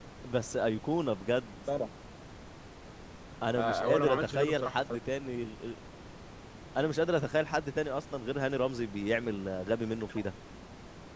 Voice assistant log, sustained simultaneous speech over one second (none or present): present